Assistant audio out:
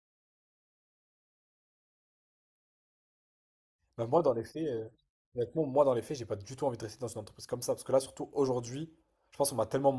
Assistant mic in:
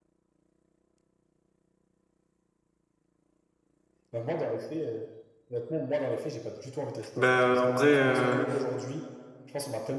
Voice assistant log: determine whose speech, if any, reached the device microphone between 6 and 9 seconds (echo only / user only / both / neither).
both